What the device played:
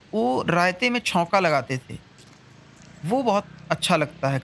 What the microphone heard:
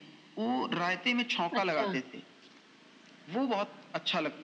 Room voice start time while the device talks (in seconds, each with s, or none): 1.5 s